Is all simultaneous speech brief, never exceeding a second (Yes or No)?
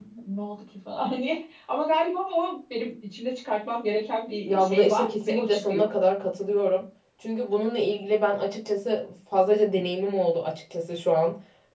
No